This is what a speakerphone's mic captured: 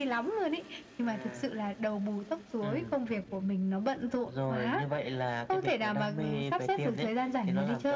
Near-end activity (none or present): present